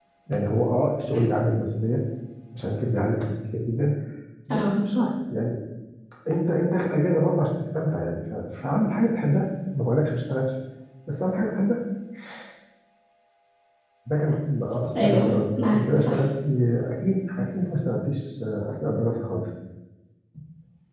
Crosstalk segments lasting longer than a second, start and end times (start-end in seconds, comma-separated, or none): 15.0-16.2